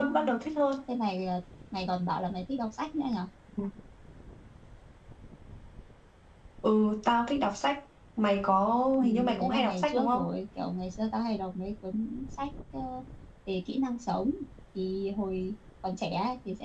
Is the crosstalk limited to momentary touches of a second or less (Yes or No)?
No